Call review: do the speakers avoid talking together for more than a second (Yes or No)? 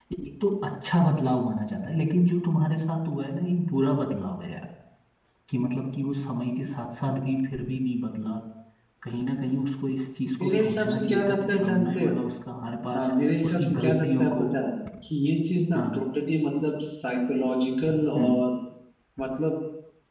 No